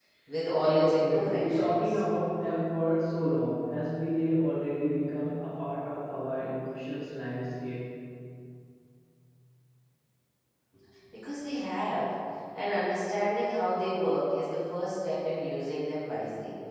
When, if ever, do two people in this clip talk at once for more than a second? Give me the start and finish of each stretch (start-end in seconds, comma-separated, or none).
0.6-2.0